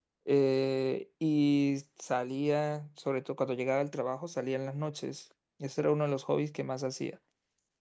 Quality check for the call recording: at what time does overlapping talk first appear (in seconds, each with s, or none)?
none